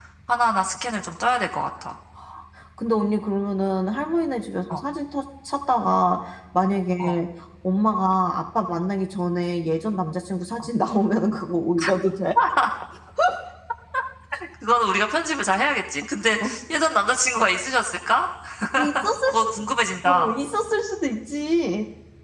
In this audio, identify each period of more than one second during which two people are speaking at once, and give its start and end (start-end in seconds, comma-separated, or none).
none